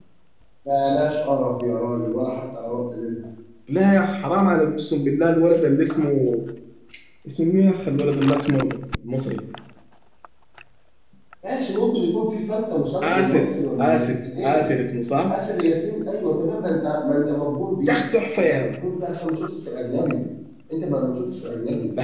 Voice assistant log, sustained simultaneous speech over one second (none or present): none